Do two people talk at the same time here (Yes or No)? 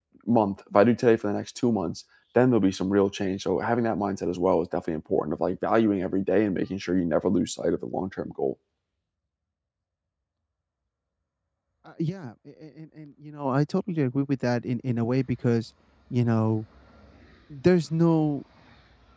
No